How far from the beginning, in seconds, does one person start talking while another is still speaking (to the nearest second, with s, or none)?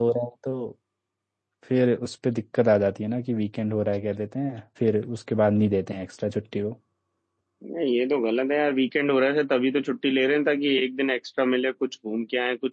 none